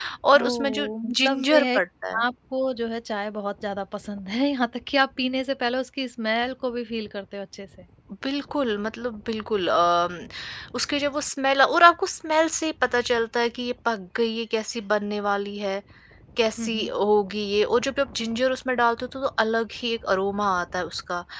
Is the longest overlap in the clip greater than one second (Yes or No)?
Yes